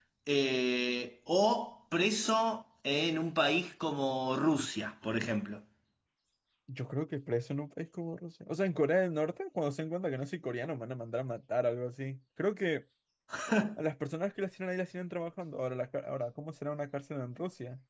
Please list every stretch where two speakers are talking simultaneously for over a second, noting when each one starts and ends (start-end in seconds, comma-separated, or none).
none